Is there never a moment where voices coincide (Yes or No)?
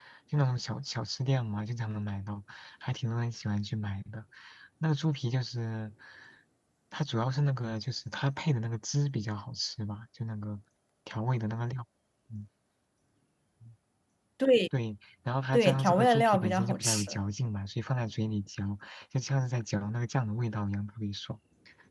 No